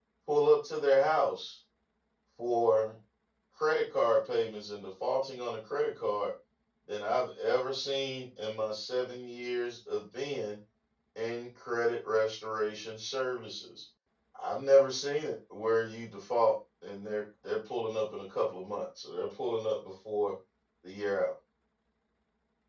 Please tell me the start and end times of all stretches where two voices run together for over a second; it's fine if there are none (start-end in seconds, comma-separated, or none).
none